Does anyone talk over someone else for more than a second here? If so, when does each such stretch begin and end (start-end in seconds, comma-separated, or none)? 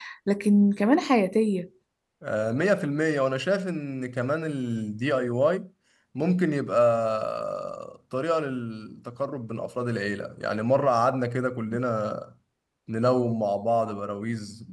none